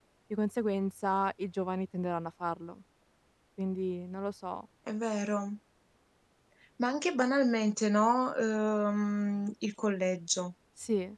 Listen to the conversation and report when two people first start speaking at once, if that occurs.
none

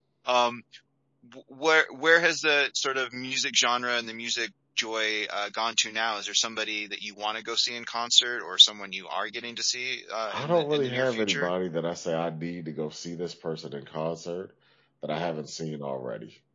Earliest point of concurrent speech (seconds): 10.3 s

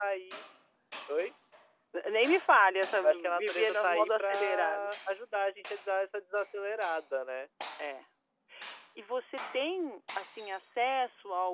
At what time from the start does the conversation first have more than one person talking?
3.0 s

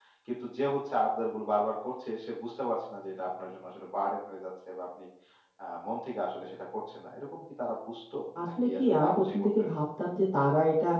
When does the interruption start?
8.3 s

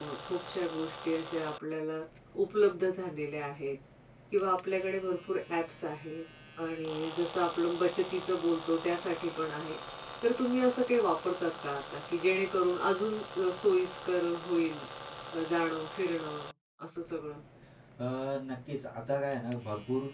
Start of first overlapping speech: none

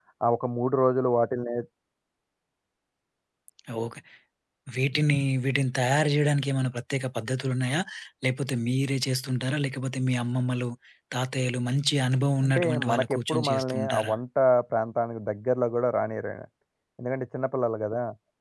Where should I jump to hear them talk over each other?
12.4 s

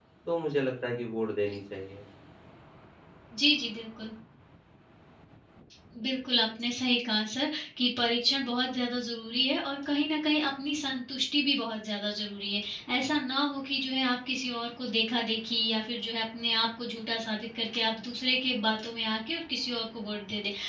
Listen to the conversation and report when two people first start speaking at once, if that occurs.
none

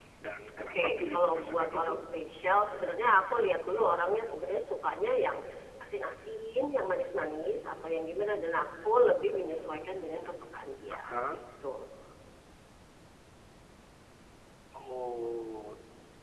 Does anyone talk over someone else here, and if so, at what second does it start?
0.6 s

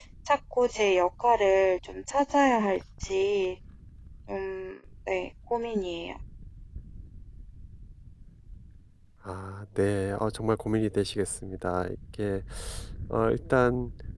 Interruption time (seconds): none

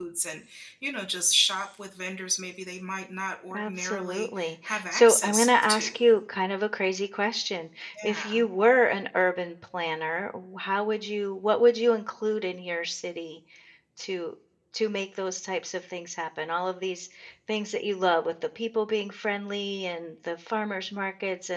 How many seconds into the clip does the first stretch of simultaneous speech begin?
3.5 s

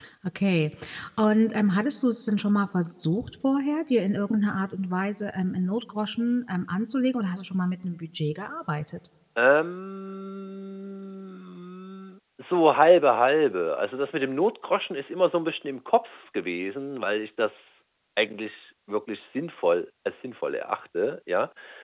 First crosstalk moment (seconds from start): none

